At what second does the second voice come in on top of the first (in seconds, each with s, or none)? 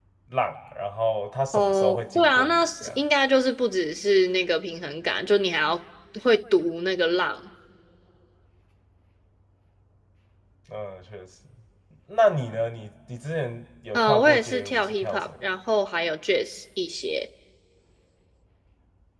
1.5 s